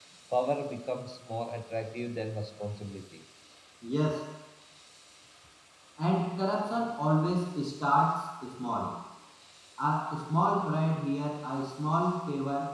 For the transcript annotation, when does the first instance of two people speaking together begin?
none

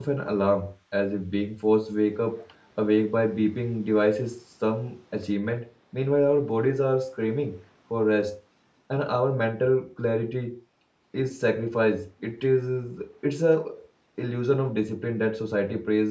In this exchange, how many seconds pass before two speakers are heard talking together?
none

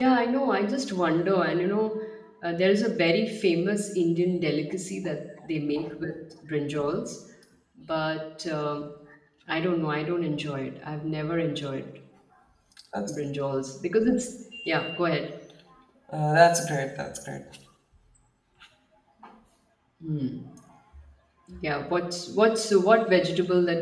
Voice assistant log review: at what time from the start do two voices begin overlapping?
none

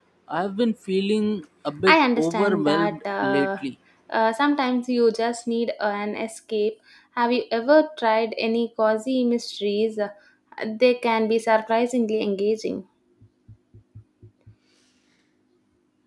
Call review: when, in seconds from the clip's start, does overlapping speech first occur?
1.8 s

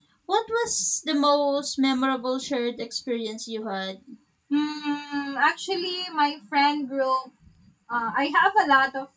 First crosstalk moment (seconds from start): none

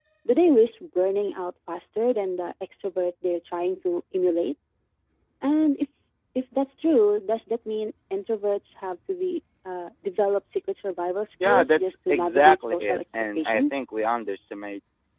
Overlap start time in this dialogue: 11.4 s

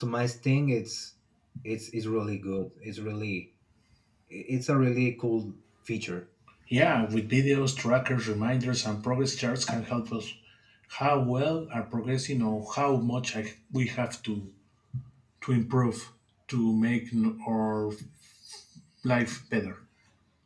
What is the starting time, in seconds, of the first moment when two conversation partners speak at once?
none

